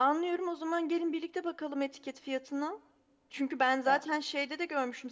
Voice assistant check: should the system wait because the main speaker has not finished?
Yes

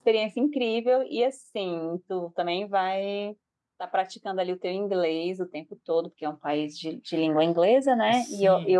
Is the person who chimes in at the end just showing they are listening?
No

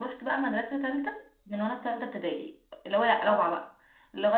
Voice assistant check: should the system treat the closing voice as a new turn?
No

